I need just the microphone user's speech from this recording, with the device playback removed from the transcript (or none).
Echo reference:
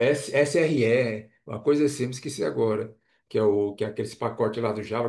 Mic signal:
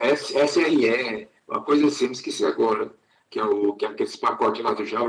none